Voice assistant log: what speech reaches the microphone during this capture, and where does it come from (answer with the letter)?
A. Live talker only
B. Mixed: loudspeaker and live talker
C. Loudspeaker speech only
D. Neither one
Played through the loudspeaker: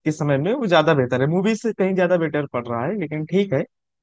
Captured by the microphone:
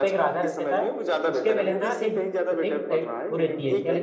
B